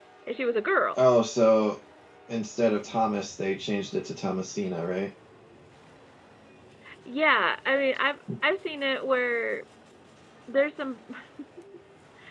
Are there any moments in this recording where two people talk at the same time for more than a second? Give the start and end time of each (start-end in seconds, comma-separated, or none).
none